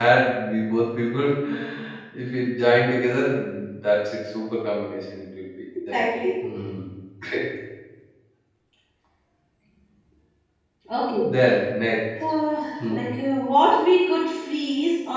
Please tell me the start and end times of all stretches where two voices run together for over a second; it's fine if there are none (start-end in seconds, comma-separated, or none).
none